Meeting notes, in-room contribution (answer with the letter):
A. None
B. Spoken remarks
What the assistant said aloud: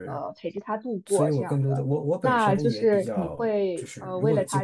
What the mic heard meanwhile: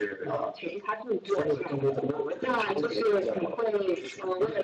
A